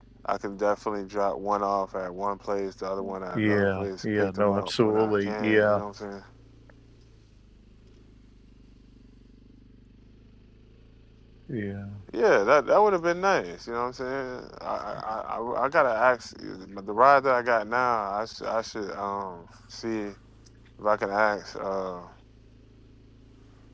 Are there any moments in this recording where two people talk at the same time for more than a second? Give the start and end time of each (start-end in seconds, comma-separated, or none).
3.3-5.8